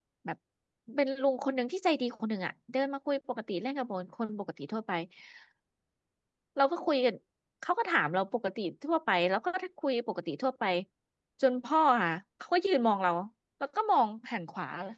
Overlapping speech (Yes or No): No